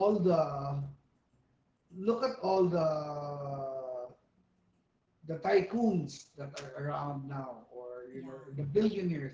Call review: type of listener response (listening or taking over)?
listening